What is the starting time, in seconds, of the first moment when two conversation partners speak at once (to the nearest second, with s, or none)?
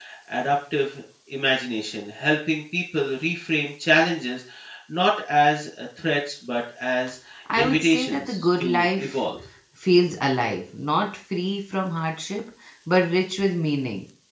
7 s